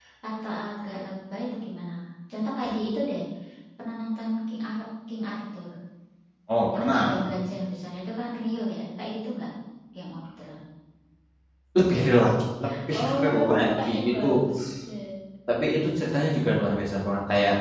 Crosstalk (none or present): present